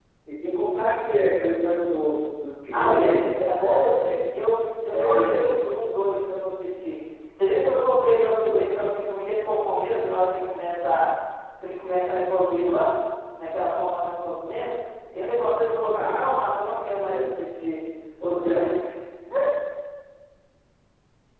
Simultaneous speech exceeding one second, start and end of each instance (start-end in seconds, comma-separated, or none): 2.7-4.4